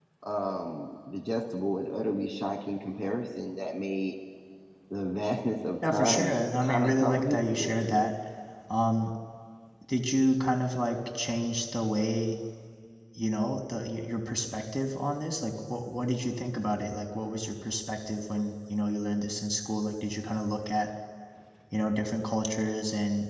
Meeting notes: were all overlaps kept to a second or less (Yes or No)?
No